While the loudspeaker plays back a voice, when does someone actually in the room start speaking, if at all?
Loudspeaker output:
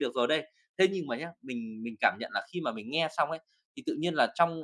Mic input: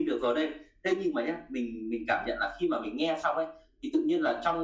none

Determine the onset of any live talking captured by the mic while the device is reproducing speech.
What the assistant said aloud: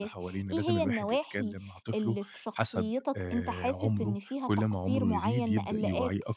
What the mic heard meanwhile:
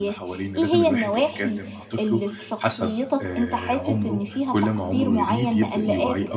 none

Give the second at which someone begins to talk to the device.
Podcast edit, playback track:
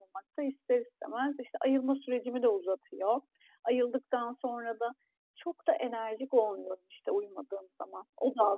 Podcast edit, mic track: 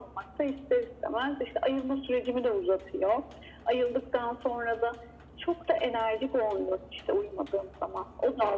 none

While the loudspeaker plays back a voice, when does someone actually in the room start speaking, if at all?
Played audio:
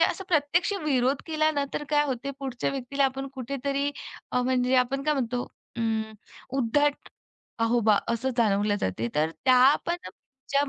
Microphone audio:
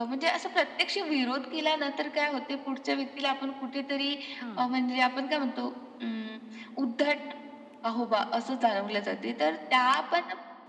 4 s

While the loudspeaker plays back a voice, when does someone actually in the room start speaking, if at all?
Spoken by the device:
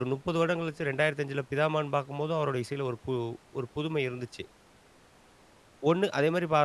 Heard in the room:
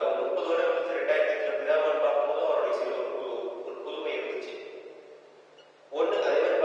none

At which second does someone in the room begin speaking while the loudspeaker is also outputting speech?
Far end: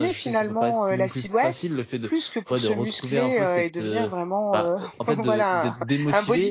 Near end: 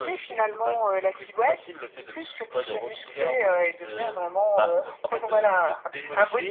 none

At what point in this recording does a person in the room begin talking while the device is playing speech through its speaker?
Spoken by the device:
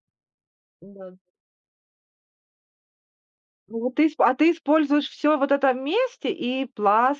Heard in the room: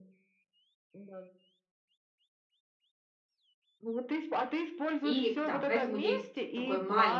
5 s

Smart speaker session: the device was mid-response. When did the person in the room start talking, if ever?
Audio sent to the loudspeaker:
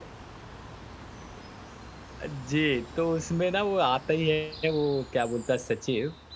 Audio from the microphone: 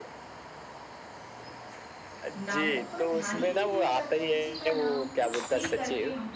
2 s

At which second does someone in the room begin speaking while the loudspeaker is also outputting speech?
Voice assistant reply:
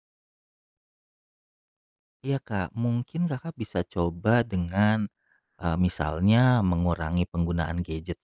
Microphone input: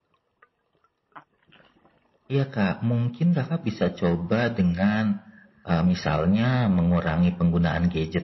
none

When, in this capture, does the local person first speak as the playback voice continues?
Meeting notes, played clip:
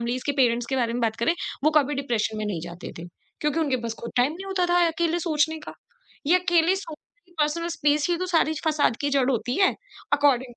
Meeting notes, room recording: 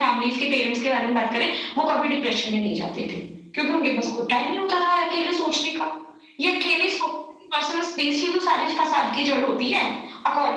none

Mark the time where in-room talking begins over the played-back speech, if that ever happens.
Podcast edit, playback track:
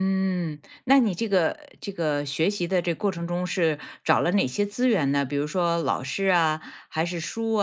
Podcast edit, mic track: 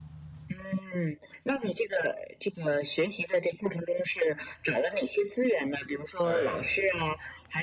6 s

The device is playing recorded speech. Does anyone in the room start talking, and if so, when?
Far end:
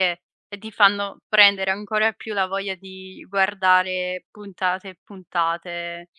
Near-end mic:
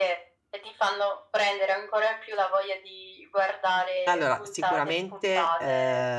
4 s

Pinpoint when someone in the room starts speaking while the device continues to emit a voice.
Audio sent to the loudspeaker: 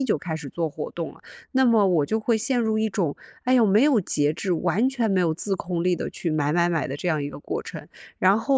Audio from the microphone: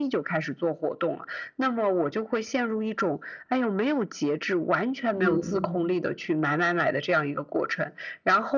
5 s

